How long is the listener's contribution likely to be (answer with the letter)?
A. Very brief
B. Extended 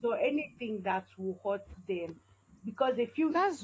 A